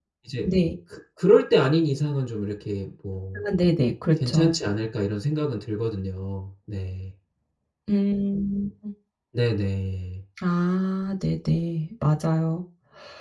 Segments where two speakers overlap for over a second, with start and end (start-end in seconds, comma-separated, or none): none